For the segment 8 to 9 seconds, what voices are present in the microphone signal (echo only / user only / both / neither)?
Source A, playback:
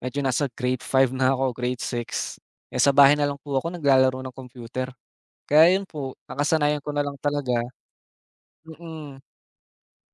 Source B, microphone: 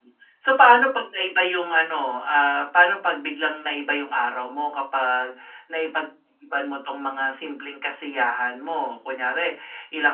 user only